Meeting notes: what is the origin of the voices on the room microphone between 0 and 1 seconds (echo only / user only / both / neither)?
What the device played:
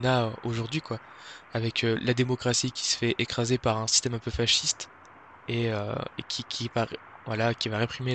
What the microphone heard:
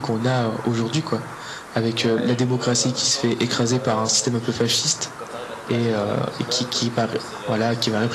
echo only